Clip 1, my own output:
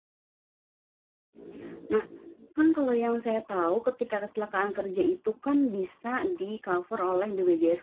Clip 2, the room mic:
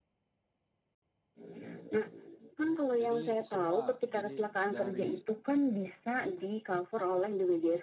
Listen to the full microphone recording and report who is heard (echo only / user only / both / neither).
both